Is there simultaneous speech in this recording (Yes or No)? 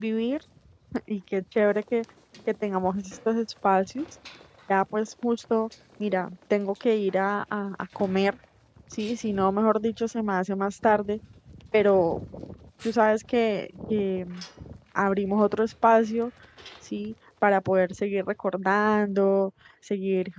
No